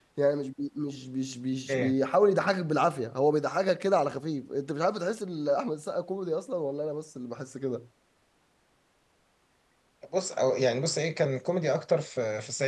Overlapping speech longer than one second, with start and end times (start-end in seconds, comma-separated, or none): none